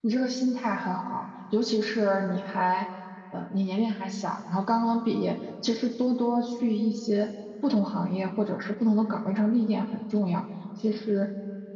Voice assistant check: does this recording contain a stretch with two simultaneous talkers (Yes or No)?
No